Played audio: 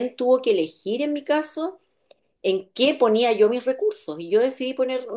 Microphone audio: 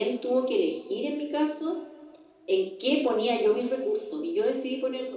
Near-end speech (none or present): none